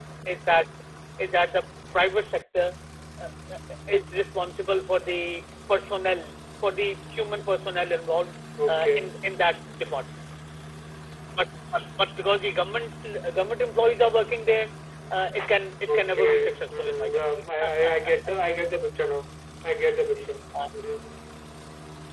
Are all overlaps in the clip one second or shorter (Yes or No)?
No